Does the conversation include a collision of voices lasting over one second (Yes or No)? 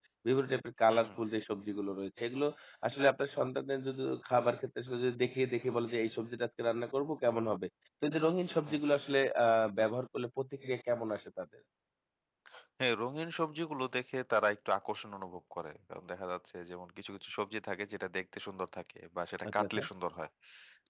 No